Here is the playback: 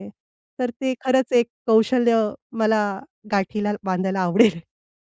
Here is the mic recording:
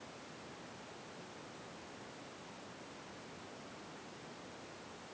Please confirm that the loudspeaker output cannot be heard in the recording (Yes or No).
Yes